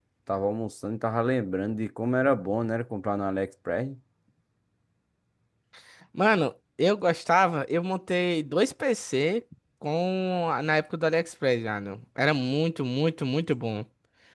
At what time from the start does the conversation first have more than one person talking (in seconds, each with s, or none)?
none